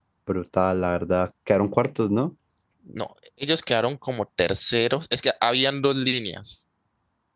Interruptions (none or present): none